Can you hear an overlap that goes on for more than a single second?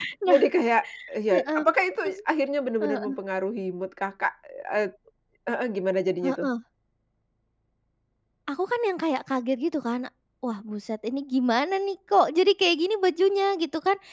No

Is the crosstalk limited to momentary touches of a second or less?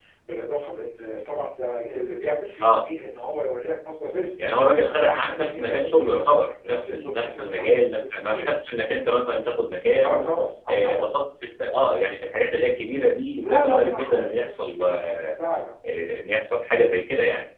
No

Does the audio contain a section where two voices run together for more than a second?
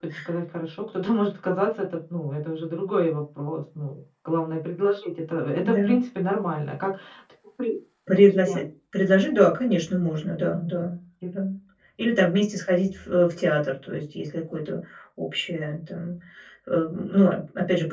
No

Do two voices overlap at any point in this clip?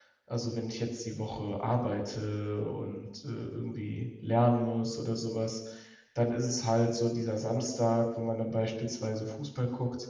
No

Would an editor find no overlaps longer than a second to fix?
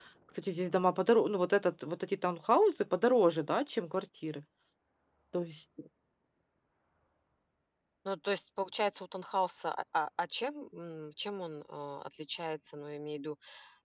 Yes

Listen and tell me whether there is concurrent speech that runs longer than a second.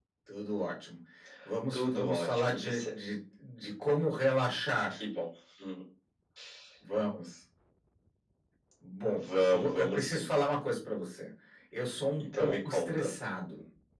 Yes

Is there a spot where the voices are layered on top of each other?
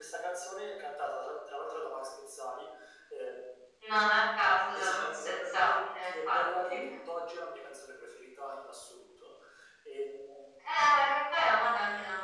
Yes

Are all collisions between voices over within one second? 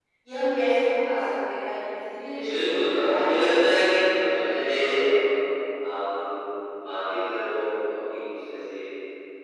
No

